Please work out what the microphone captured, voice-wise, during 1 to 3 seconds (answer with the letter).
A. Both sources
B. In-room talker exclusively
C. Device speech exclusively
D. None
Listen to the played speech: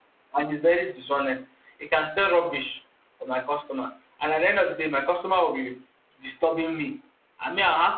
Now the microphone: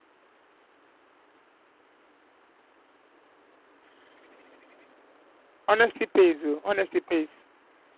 D